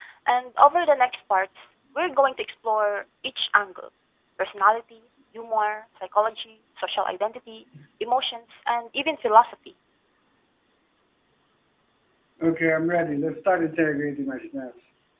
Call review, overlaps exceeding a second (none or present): none